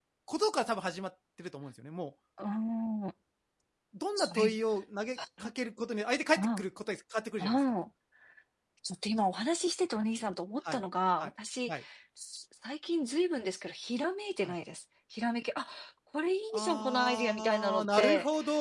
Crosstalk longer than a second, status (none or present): present